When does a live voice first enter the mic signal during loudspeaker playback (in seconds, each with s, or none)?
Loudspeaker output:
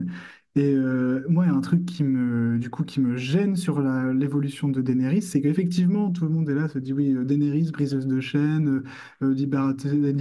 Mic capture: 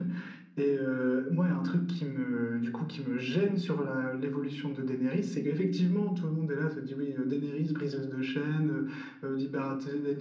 none